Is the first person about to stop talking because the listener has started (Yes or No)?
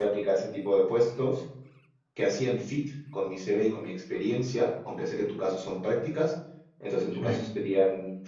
No